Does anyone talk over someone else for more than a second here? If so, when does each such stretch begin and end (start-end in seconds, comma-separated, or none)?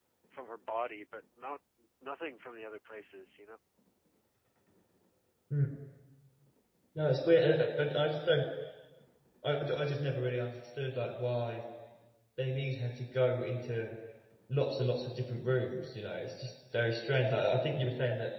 none